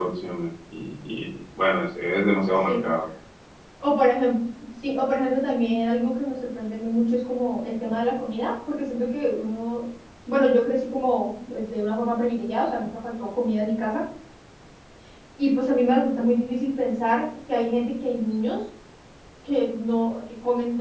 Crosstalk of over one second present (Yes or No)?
No